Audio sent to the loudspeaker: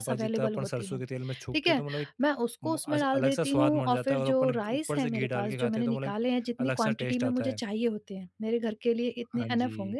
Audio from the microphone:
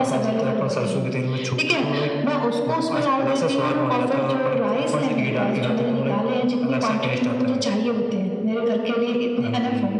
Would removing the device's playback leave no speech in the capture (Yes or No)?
Yes